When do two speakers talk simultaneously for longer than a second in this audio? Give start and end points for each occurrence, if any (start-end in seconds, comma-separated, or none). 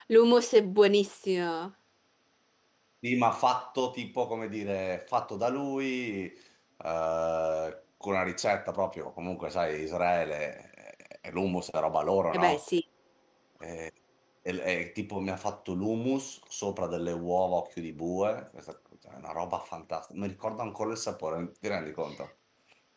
none